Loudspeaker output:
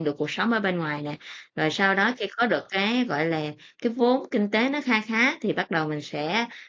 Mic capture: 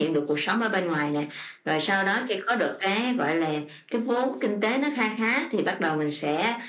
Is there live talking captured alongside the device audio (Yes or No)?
No